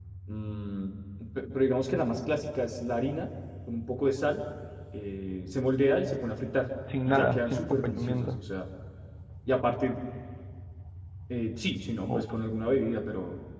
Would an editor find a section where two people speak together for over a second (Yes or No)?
Yes